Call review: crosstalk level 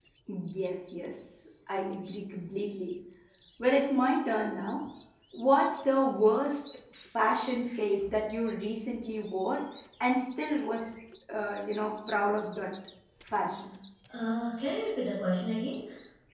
none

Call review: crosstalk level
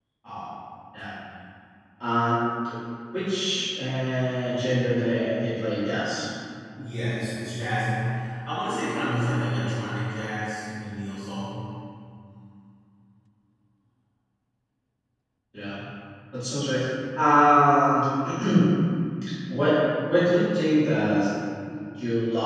none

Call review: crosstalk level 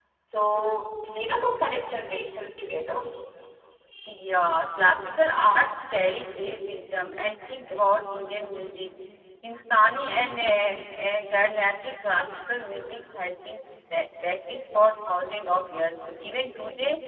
none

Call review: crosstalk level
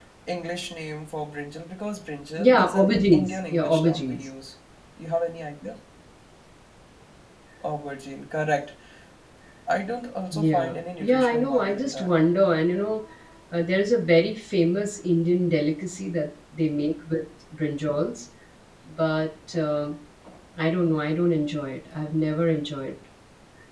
present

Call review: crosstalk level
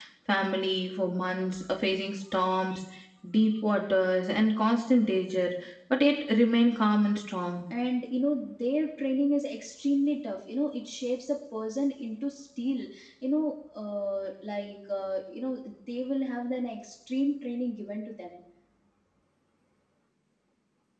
none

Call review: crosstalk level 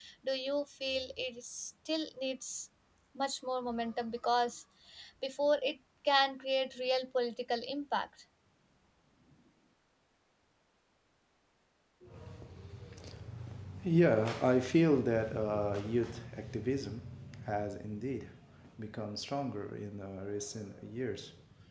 none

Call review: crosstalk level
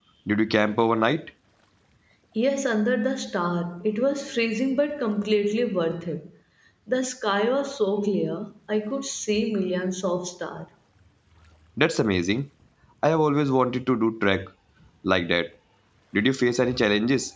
none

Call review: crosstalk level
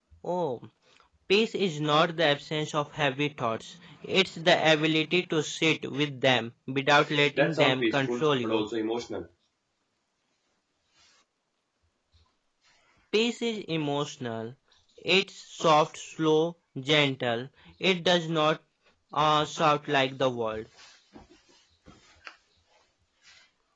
present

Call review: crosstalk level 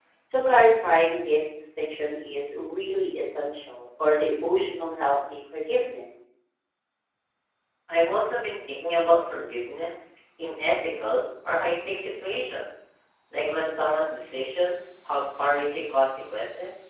none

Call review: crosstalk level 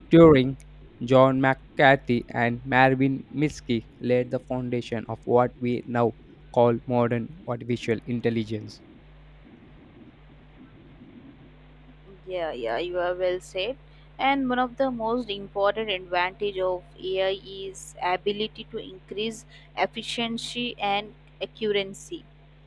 none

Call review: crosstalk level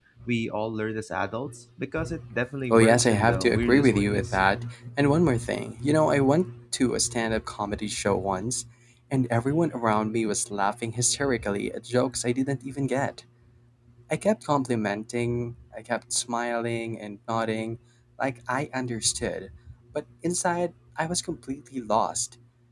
present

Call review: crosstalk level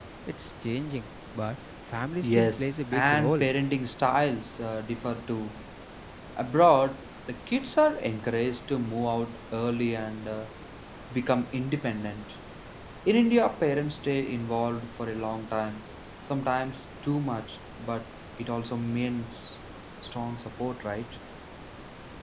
present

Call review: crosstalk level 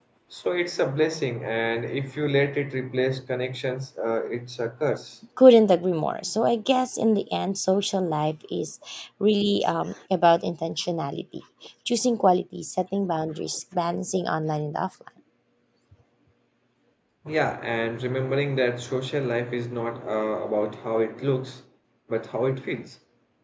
none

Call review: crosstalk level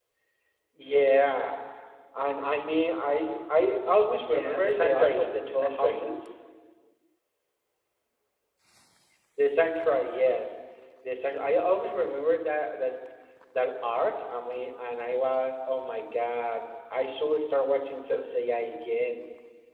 present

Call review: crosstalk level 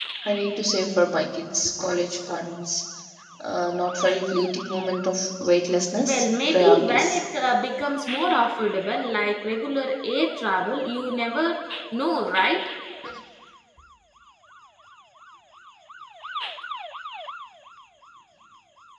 present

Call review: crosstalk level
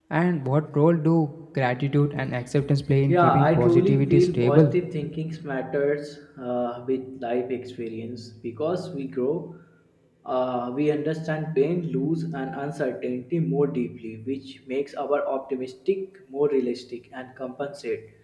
present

